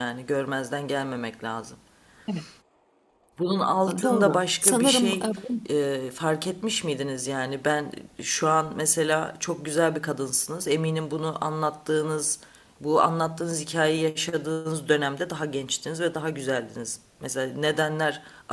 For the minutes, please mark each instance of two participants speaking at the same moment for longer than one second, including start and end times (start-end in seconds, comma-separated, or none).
4.0-5.3